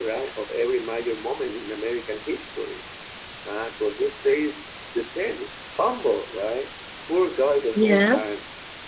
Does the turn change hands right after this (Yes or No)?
No